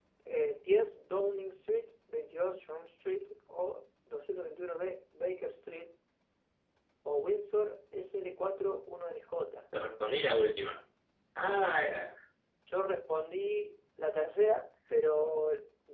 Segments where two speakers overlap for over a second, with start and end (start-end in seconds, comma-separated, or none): none